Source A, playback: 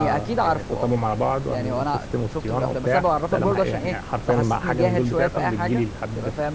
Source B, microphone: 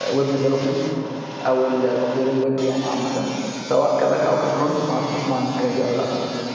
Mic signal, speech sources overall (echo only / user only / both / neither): user only